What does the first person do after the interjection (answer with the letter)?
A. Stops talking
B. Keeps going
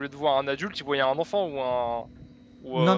A